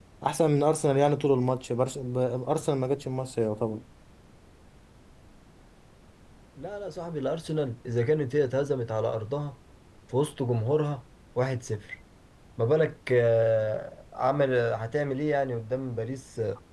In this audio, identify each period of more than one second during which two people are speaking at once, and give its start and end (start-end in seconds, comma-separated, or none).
none